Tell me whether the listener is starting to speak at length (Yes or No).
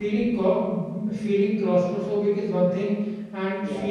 No